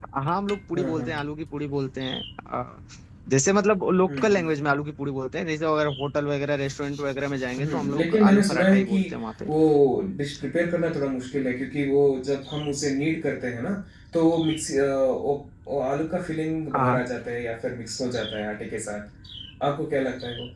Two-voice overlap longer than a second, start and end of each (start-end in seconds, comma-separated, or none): 7.6-9.0